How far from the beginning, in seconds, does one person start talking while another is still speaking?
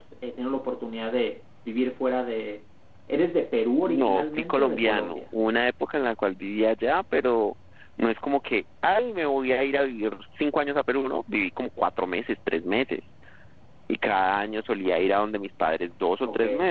3.9 s

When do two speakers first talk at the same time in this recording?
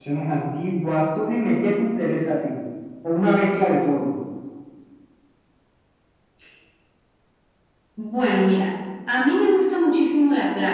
none

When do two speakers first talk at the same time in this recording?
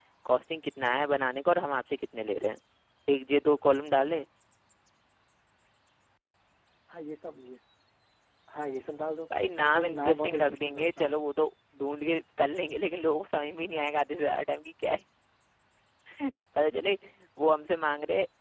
9.6 s

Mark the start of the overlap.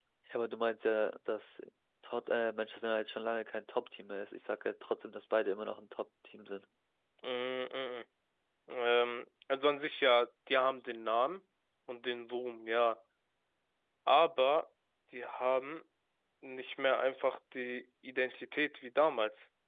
none

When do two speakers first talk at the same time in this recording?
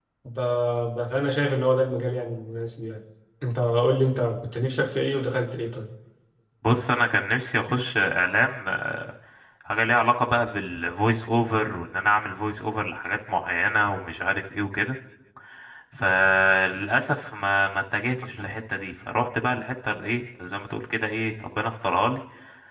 none

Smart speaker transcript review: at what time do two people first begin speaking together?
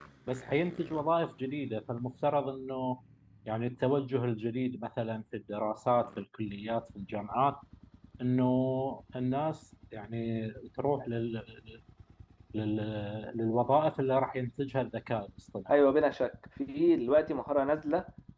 none

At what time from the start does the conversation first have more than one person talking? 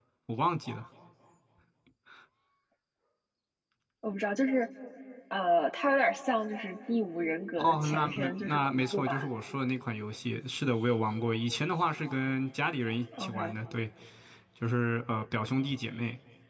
7.6 s

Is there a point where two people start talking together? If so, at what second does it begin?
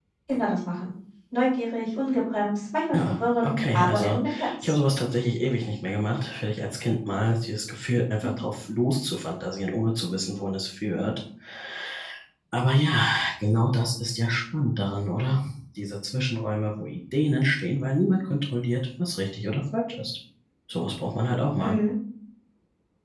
2.9 s

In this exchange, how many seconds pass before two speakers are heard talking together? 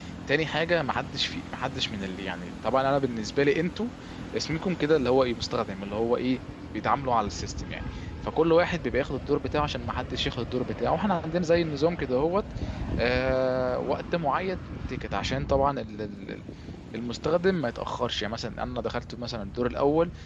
none

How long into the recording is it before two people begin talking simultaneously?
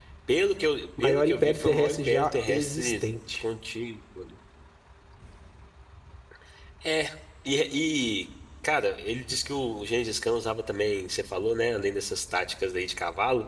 1.0 s

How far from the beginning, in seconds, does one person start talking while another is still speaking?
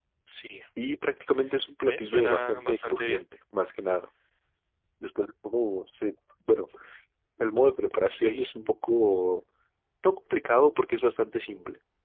1.8 s

